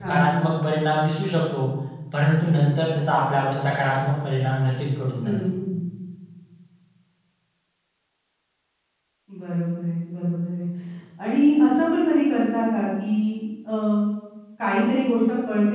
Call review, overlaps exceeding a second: none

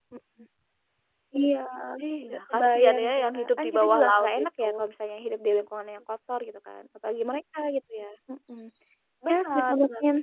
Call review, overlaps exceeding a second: present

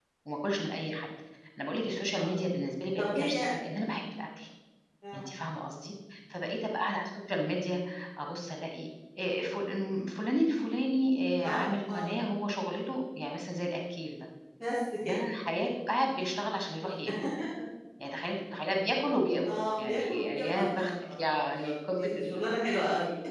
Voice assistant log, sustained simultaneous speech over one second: present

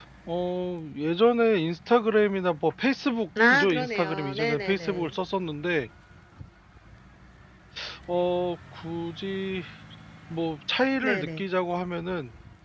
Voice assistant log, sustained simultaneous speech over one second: present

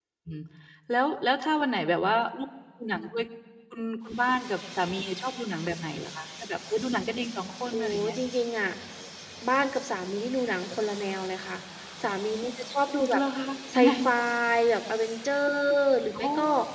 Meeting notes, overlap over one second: none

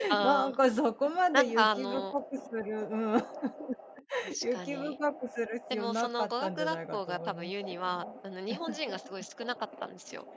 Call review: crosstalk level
present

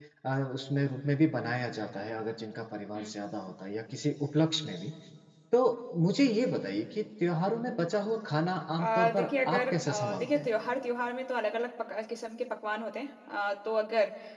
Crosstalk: present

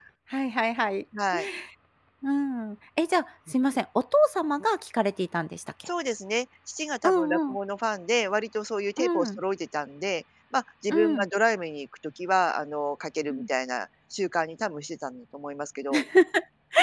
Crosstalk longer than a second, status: none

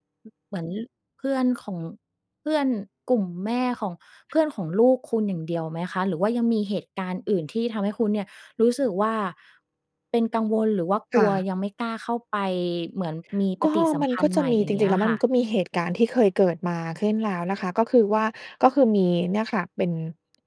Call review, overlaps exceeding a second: present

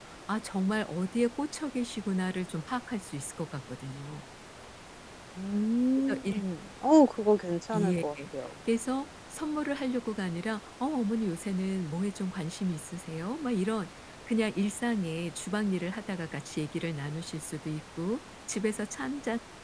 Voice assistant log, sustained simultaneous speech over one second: none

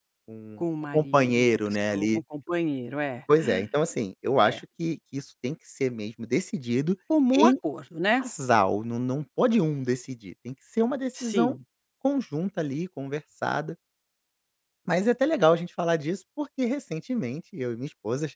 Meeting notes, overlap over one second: present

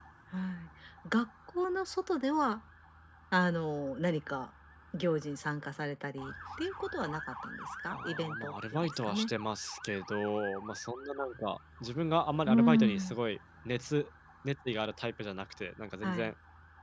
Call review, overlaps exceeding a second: present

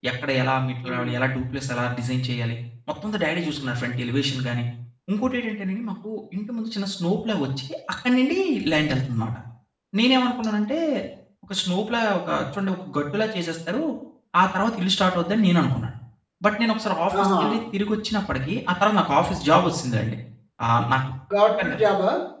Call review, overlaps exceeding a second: none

